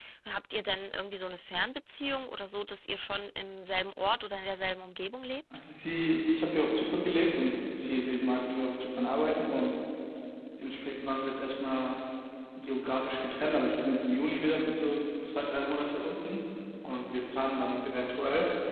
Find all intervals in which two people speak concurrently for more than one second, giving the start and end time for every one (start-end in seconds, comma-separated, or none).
none